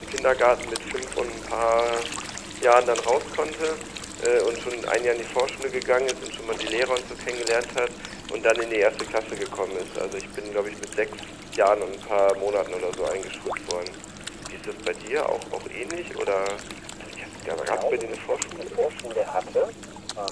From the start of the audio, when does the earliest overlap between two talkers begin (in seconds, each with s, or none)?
17.3 s